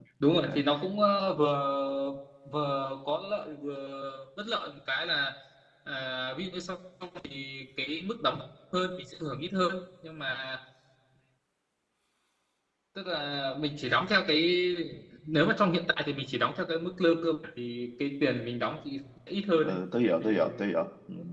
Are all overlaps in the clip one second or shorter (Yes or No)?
Yes